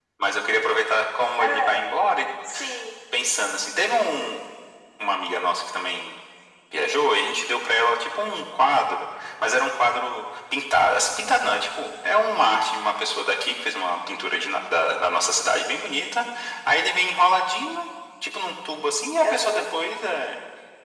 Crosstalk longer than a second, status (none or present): none